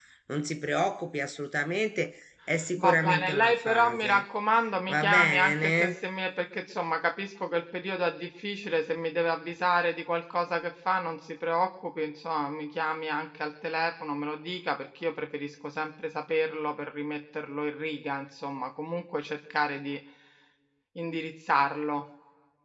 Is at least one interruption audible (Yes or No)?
Yes